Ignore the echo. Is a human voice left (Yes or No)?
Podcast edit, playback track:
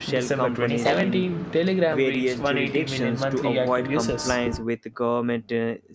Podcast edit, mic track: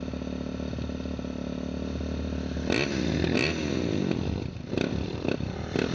No